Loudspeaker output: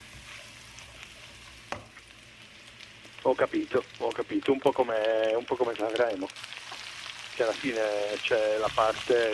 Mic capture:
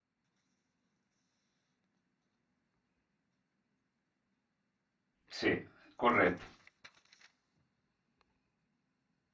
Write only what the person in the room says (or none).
sì, corretto.